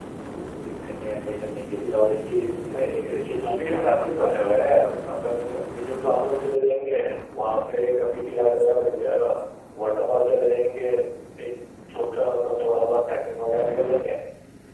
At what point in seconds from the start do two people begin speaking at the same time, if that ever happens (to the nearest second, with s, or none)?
3 s